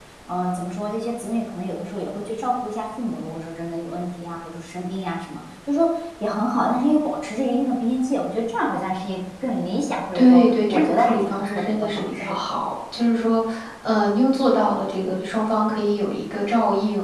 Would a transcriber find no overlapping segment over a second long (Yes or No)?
No